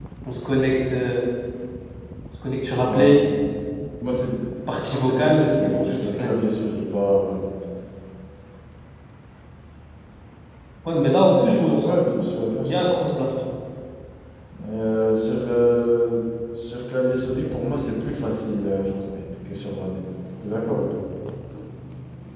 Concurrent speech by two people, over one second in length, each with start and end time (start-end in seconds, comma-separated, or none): 4.9-6.4